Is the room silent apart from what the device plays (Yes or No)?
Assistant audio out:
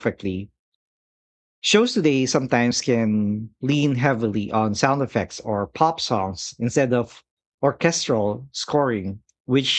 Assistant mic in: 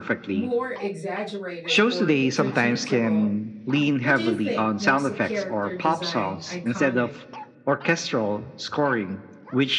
No